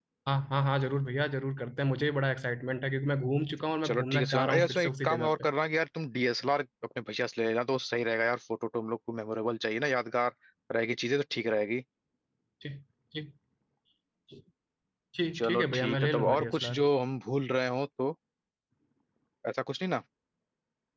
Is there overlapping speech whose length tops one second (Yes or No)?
Yes